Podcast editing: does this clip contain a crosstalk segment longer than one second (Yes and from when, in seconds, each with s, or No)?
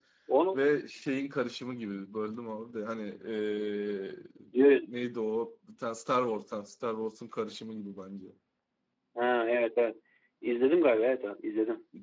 No